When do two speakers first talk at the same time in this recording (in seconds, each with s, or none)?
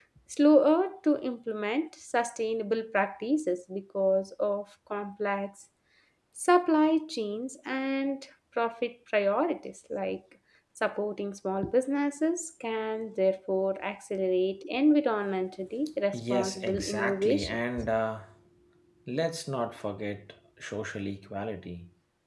16.1 s